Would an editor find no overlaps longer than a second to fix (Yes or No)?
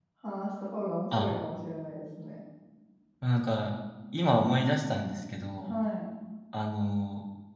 Yes